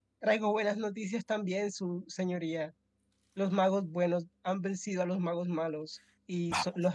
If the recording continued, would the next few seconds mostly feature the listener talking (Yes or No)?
No